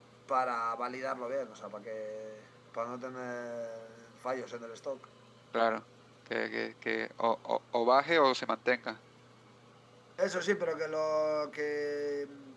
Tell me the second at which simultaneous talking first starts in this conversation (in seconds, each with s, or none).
none